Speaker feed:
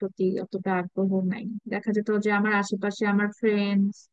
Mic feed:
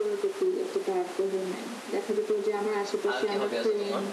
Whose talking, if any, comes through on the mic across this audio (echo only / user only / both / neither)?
both